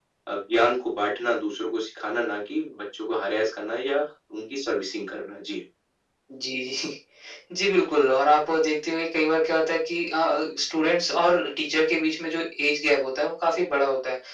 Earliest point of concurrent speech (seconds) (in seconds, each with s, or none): none